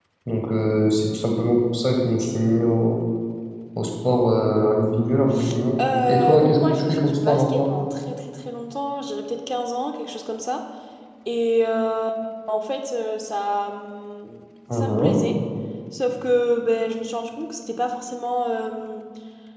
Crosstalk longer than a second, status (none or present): present